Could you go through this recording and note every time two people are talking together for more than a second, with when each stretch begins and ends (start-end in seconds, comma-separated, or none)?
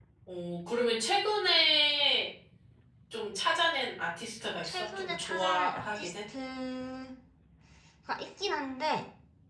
4.6-6.1